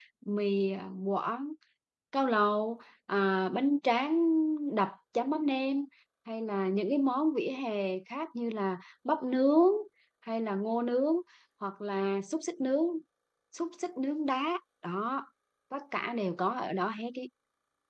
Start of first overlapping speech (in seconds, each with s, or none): none